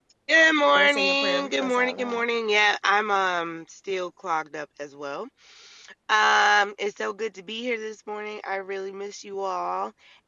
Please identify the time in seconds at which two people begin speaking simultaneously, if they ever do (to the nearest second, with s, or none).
1 s